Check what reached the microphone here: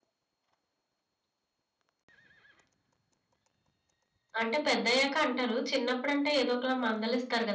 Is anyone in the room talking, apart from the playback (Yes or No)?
Yes